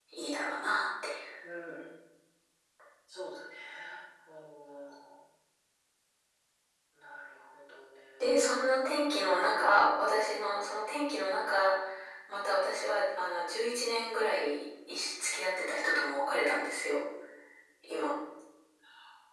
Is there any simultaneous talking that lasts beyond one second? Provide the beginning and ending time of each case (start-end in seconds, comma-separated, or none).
none